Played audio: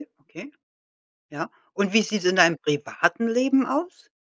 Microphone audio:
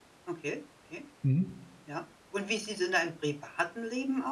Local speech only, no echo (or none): Mhm.